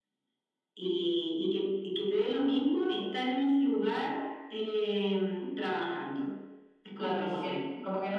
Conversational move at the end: taking over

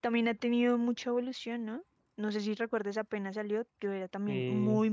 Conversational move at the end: listening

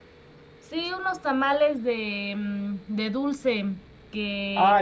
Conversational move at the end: taking over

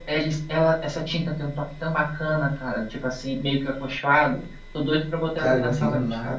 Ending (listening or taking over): taking over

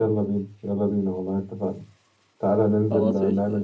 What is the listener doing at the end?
listening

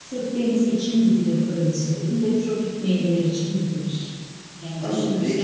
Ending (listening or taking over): taking over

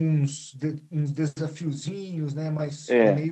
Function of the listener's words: taking over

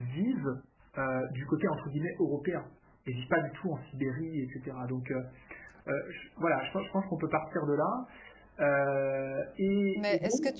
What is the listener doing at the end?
taking over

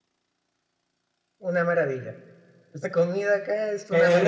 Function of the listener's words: taking over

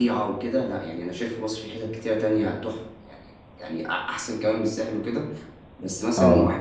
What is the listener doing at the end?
listening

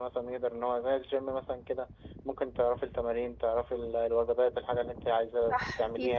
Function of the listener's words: taking over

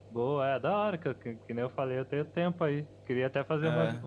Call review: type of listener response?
listening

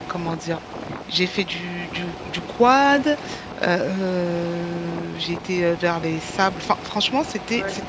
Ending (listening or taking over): listening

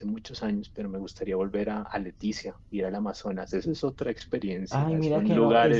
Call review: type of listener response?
taking over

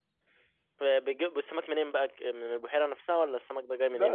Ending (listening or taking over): taking over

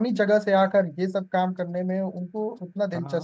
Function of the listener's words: taking over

